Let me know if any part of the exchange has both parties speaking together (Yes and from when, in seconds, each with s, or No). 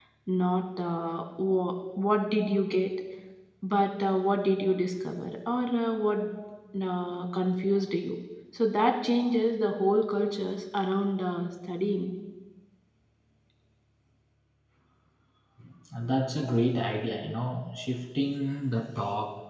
No